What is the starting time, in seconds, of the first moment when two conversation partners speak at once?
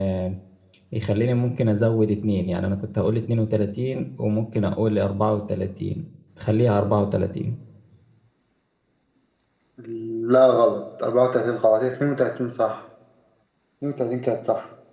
none

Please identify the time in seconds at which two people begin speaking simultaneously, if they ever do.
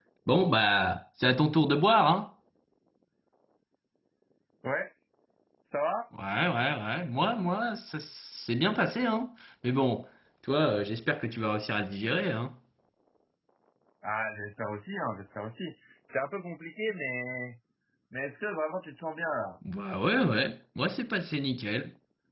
none

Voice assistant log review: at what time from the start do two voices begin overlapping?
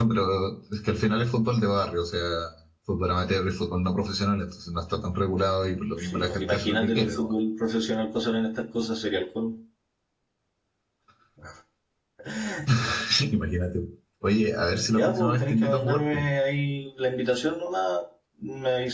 6.0 s

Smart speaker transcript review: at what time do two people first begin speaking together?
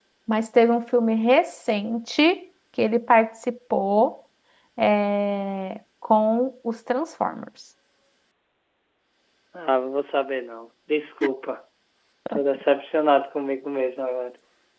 none

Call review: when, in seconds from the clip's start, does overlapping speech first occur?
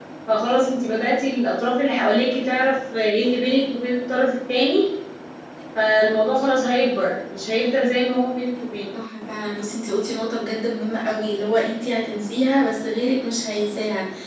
none

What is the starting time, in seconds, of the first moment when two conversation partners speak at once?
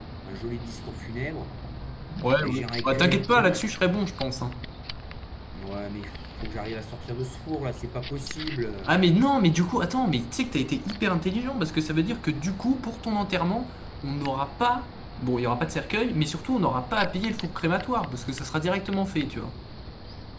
2.4 s

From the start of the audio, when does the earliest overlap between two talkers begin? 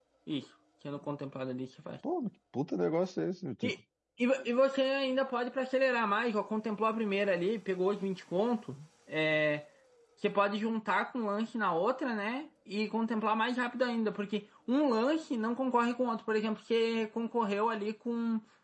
none

